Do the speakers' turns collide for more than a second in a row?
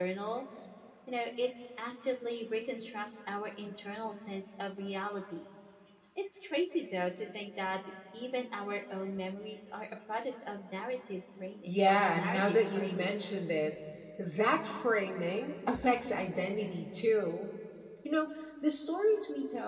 Yes, from 11.7 s

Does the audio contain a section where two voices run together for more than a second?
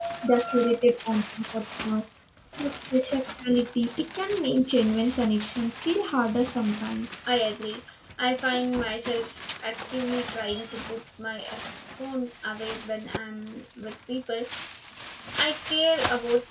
No

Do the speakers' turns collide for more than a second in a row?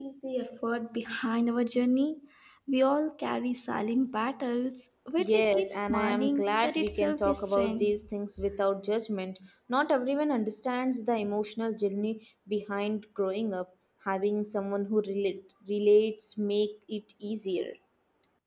Yes, from 5.2 s

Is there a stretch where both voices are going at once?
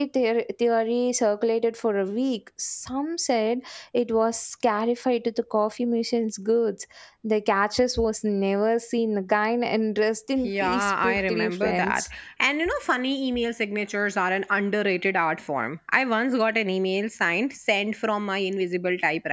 Yes, from 10.4 s

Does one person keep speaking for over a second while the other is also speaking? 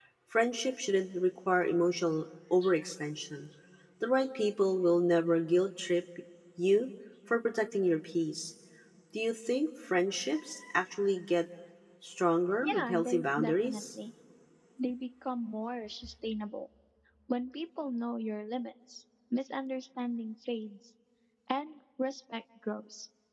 Yes, from 12.6 s

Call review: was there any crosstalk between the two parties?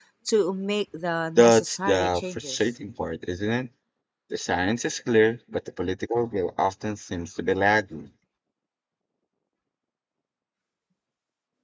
Yes, from 1.4 s

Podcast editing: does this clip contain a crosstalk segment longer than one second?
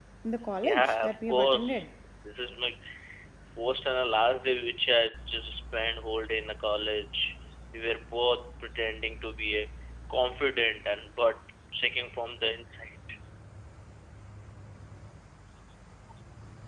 Yes, from 0.6 s

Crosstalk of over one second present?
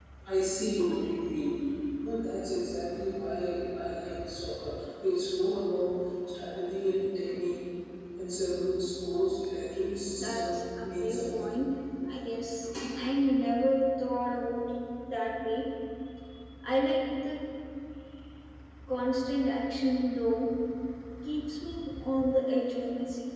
Yes, from 10.2 s

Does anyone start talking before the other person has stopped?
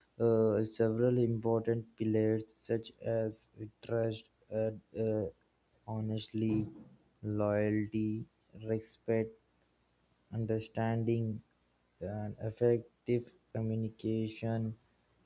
No

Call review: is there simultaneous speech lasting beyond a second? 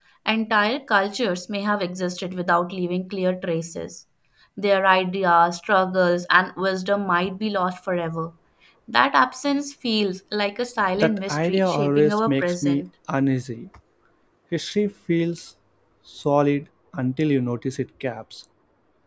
Yes, from 11.0 s

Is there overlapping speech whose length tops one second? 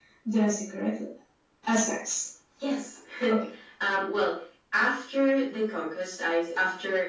No

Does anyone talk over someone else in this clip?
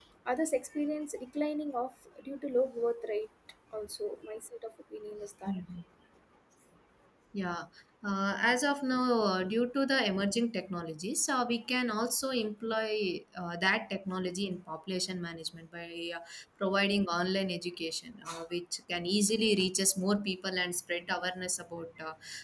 No

